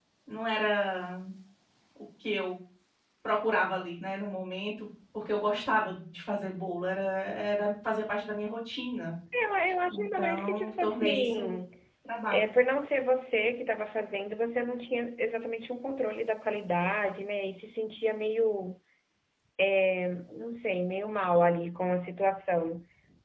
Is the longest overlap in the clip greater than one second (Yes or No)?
Yes